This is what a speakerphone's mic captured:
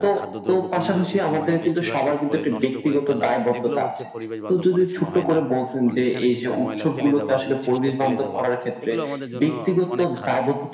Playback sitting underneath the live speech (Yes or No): No